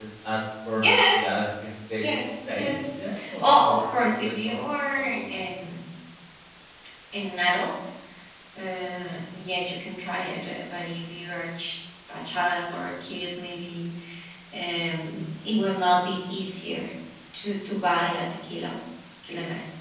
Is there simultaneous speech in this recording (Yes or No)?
Yes